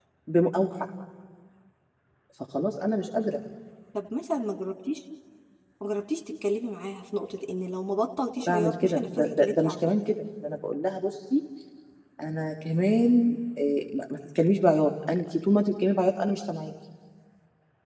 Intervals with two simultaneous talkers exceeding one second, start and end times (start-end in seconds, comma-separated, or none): 8.5-9.9